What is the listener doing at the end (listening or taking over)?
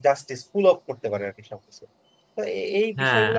listening